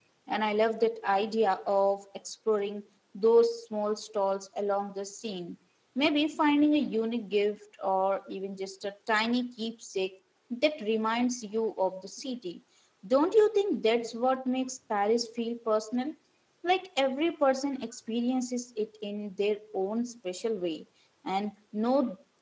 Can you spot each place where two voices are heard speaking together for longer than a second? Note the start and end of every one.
none

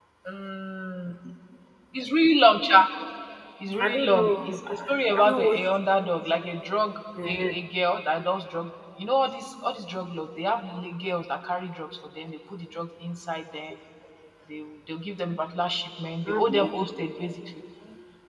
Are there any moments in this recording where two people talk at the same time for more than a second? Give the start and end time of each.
3.8-5.6

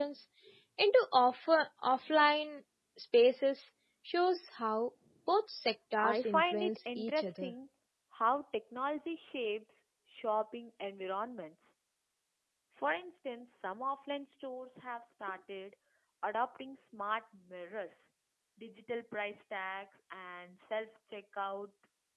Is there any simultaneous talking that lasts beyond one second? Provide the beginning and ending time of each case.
6.0-7.5

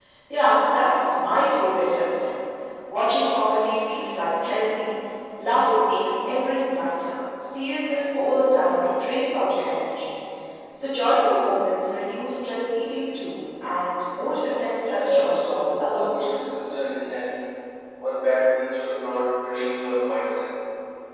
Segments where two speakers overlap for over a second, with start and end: 14.9-16.1

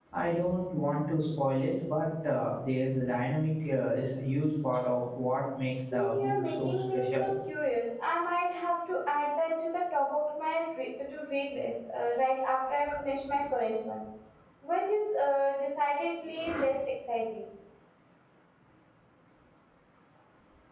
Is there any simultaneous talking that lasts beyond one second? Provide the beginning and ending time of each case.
5.9-7.3

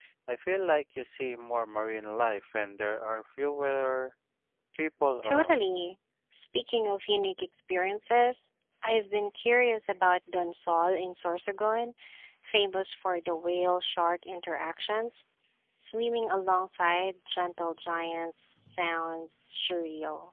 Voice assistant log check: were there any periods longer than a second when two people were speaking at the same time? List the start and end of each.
none

